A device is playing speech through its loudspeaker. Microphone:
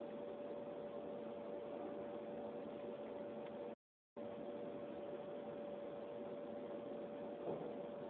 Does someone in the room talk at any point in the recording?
No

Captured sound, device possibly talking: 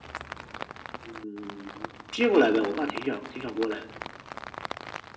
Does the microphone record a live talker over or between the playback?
No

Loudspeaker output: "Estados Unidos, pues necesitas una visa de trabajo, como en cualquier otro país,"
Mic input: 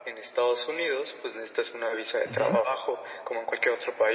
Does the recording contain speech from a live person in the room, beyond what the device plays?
Yes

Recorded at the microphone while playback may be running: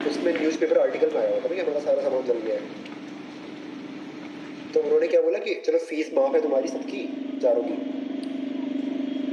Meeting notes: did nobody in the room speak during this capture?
Yes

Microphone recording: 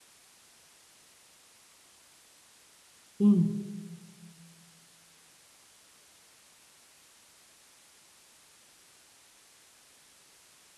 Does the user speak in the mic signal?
Yes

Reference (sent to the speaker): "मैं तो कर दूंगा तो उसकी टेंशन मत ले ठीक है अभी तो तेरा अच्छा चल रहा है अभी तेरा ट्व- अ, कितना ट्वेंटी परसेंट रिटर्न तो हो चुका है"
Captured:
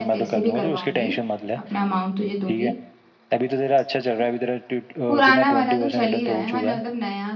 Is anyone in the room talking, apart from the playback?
Yes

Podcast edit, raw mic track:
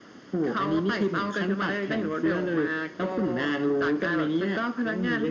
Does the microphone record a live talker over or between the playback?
No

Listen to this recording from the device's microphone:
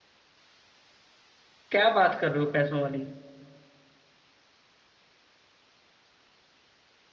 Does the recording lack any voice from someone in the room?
No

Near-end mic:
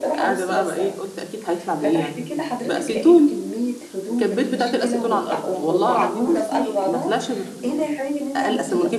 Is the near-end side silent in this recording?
No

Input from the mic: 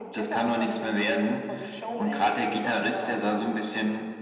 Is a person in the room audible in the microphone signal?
No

